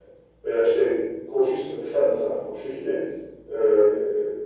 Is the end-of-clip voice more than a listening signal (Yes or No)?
No